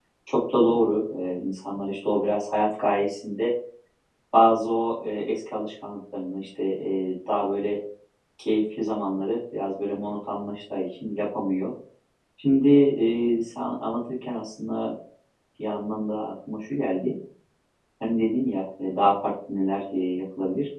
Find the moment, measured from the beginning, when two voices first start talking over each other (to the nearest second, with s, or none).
none